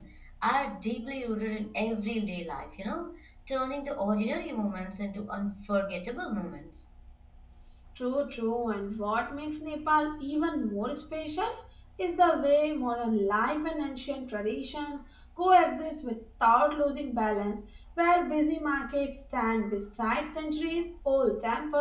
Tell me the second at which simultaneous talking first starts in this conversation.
none

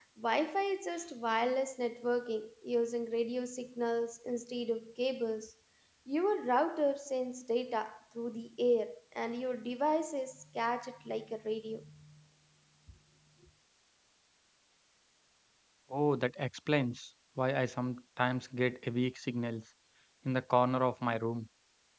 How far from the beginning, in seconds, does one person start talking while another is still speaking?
none

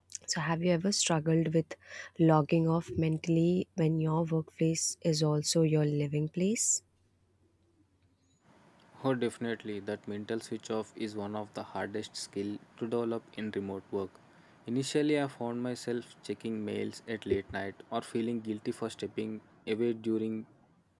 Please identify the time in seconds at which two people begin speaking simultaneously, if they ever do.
none

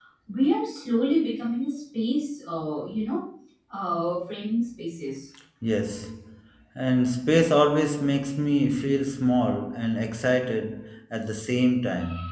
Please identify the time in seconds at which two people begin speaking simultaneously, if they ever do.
none

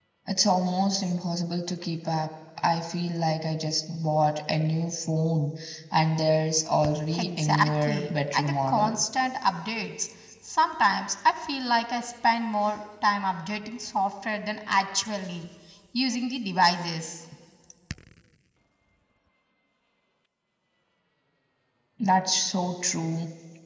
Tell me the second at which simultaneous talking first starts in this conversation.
7.1 s

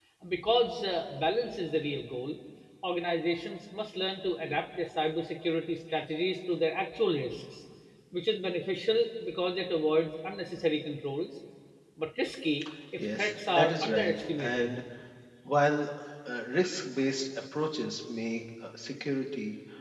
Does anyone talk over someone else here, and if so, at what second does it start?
13.0 s

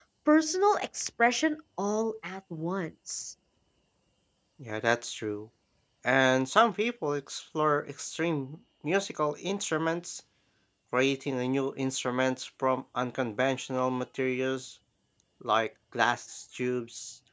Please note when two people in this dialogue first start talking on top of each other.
none

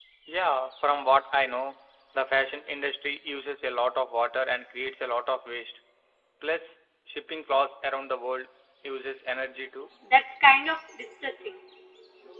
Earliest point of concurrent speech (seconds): none

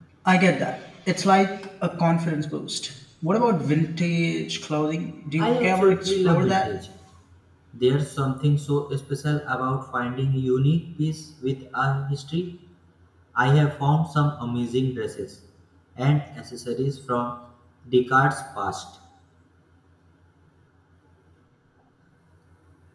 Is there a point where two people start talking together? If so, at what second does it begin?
5.4 s

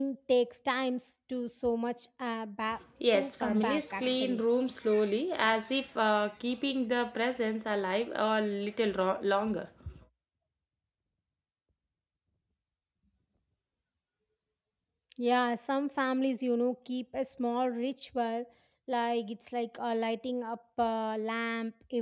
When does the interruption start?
3.0 s

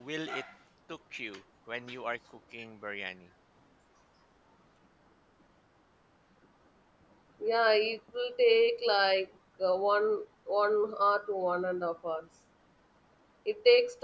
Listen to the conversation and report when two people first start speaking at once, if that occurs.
none

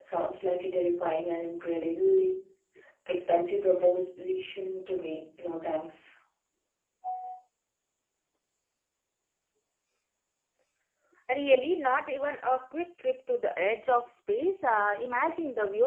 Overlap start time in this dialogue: none

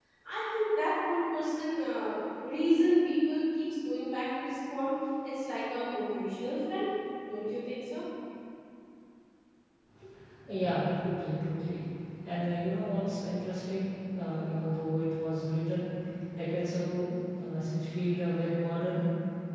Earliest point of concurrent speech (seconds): none

